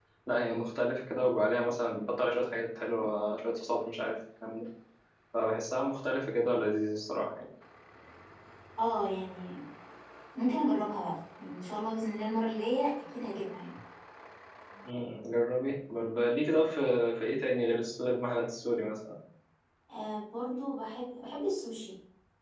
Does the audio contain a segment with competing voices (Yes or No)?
No